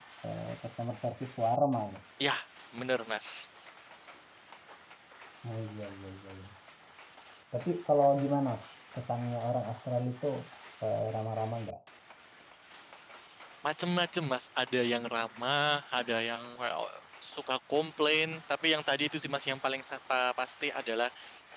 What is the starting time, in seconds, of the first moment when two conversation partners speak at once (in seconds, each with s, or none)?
none